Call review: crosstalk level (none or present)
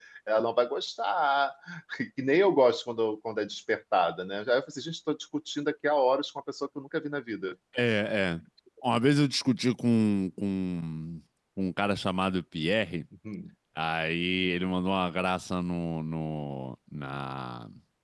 none